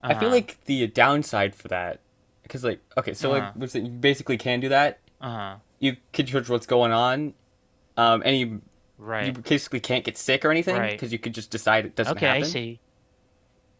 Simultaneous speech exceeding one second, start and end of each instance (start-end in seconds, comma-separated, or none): none